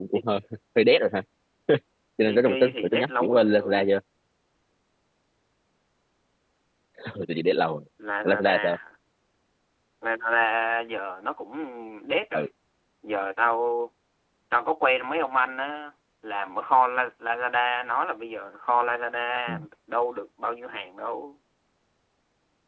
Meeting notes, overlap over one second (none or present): present